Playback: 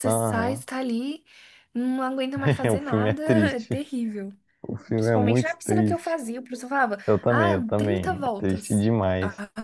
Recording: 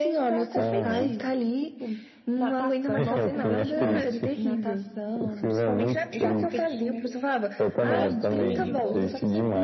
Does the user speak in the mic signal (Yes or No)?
Yes